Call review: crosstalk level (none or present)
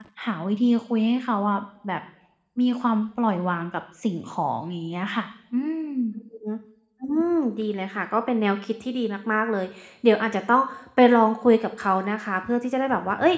none